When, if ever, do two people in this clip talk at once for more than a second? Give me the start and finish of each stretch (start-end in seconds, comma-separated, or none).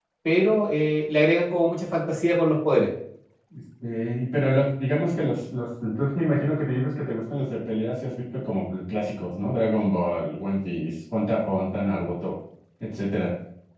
none